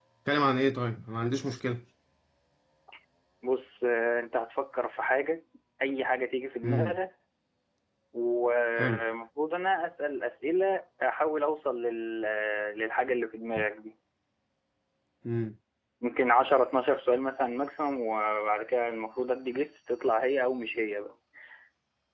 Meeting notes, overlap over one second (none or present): none